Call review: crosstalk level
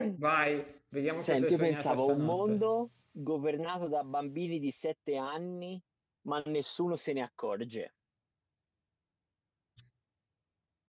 present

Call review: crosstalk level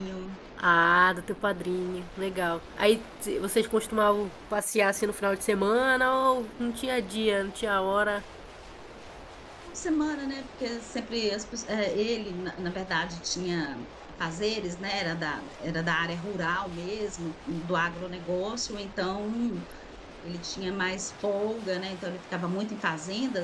none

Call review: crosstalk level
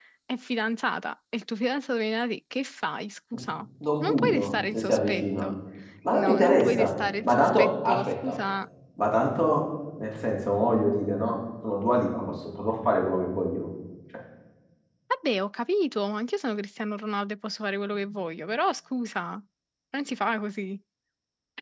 present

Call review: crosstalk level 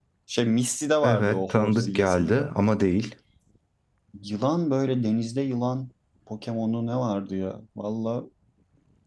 present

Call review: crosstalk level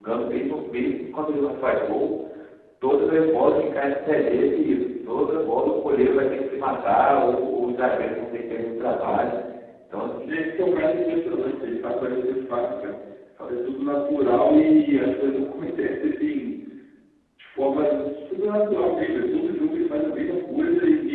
none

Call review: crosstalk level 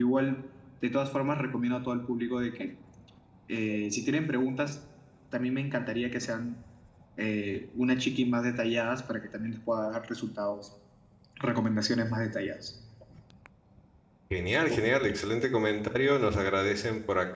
none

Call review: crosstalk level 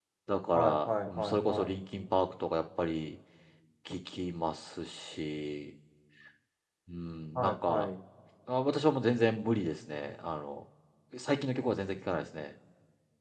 present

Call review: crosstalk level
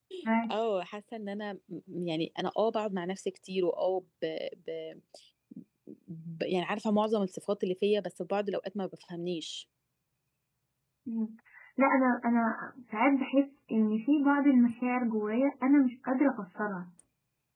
none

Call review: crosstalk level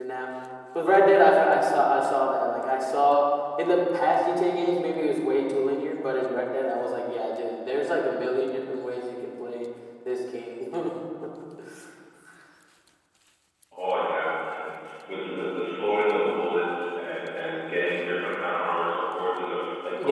none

